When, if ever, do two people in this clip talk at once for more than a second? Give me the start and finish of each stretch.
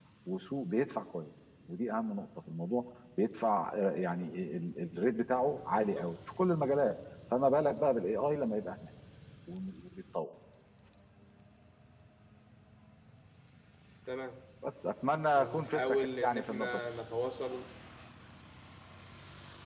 15.4-16.8

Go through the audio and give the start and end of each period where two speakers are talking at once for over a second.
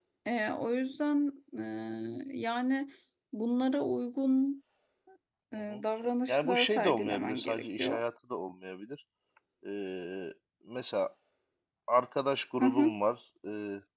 6.3-8.0

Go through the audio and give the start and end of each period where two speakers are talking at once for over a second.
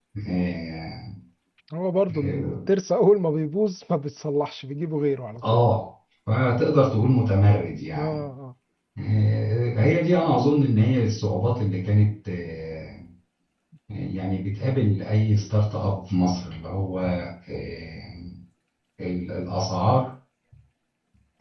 none

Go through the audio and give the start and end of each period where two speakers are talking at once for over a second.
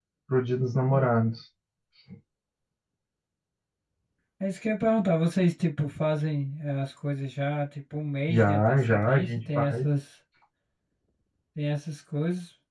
8.3-9.8

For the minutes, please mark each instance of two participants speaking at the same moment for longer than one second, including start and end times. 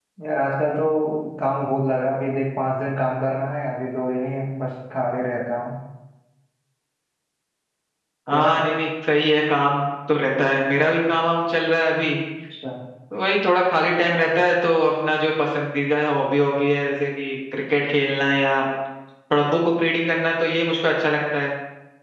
none

